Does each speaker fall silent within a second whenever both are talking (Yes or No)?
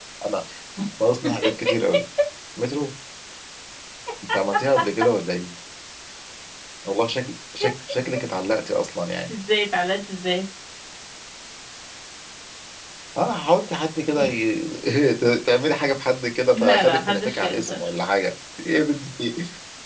No